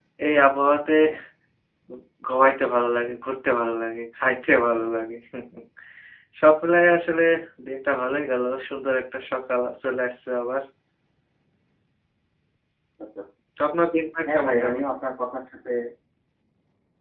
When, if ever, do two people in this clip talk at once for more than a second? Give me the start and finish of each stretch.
none

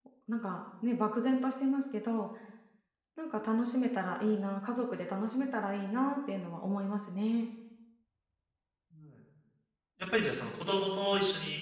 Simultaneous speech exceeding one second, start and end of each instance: none

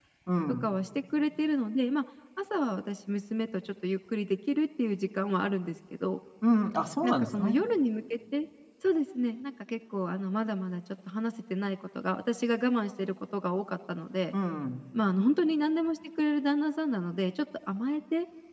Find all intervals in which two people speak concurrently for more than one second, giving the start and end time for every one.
none

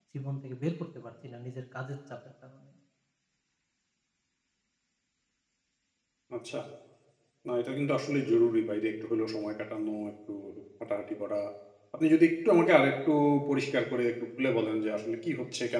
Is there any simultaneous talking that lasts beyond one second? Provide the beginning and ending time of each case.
none

